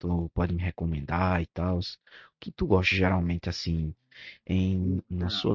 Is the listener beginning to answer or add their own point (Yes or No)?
No